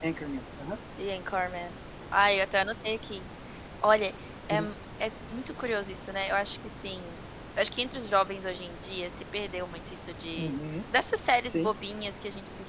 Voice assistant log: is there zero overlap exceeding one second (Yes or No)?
Yes